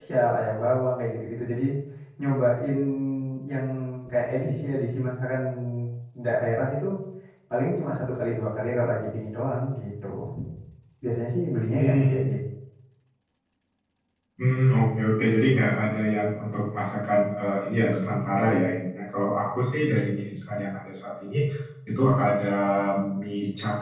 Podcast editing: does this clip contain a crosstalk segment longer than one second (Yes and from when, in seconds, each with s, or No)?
No